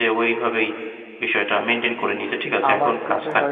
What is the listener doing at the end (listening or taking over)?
taking over